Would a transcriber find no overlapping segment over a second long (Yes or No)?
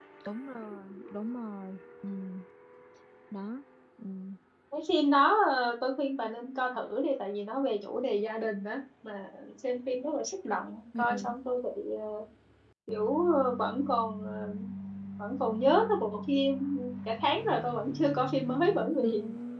Yes